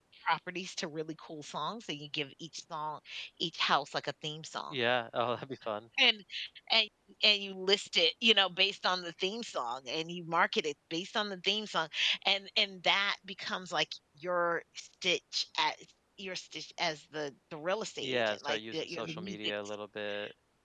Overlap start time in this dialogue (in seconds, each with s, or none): 18.0 s